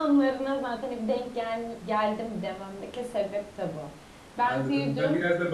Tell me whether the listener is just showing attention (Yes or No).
No